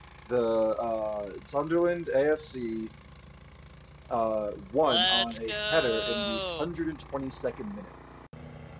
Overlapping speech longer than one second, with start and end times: 4.8-6.7

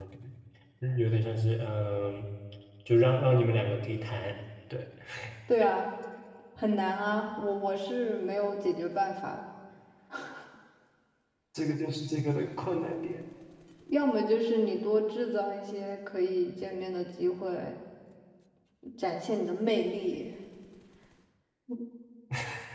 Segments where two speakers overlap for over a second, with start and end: none

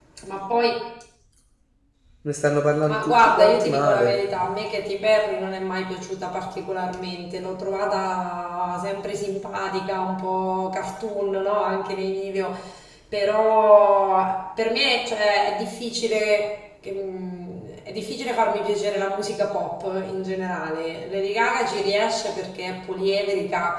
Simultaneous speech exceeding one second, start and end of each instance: 2.9-4.1

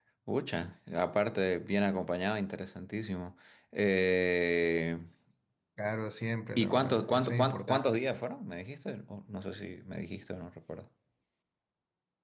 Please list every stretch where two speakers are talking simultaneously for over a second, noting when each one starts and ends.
6.6-8.0

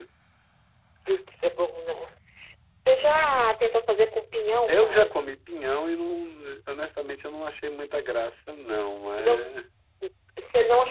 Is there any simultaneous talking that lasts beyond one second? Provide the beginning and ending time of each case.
none

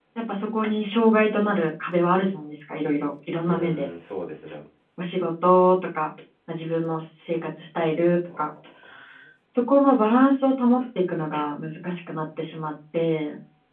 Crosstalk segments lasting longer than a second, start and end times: none

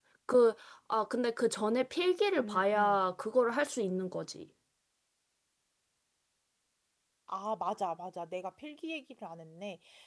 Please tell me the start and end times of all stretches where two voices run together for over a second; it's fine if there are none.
none

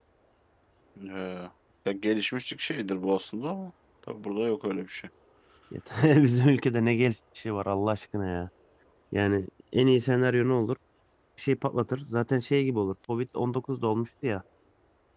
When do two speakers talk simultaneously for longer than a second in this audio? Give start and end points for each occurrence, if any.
none

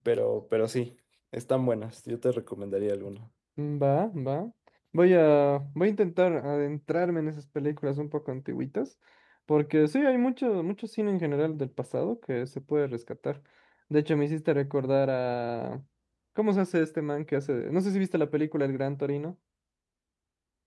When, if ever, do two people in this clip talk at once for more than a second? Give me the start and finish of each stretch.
none

